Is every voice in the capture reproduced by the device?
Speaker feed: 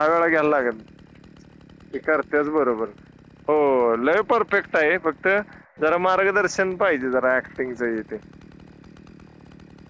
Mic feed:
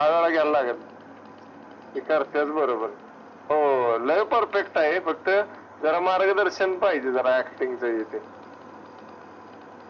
Yes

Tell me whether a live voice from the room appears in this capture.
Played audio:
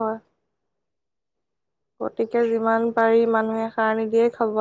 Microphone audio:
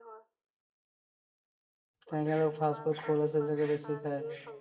Yes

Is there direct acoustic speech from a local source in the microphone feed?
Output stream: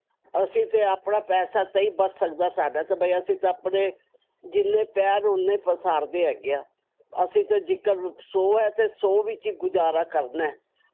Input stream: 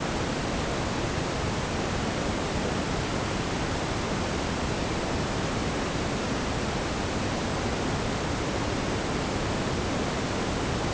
No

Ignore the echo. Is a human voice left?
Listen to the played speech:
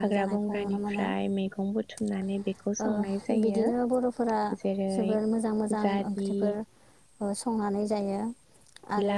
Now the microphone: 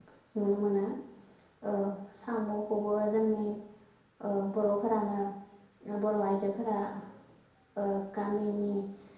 Yes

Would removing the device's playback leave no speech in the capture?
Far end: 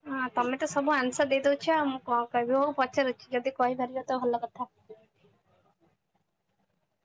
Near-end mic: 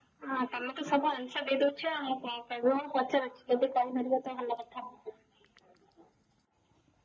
Yes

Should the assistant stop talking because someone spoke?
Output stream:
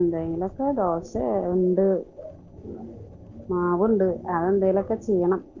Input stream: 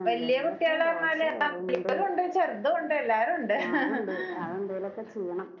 Yes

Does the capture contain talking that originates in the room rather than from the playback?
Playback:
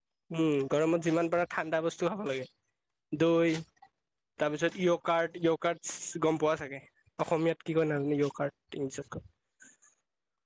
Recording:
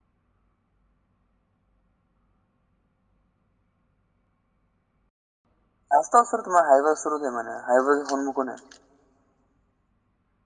Yes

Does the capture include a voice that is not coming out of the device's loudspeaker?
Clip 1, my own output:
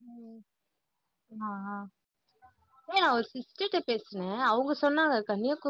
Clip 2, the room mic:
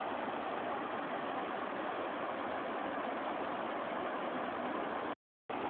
No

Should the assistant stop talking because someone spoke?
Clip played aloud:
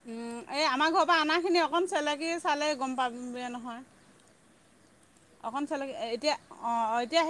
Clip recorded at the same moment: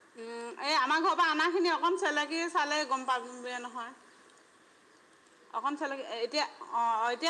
No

